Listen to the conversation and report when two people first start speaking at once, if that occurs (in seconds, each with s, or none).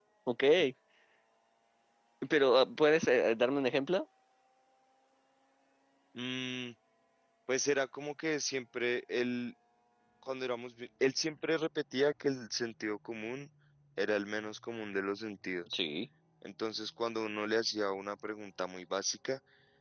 none